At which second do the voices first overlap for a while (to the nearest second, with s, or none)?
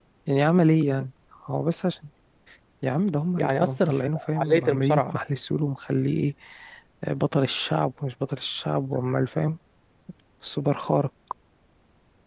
3 s